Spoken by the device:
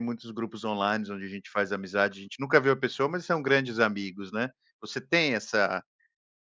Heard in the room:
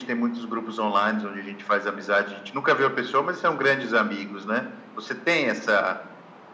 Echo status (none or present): present